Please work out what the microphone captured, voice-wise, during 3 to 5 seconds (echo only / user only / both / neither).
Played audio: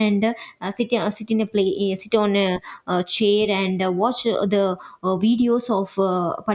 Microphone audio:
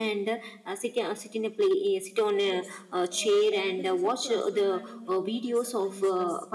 both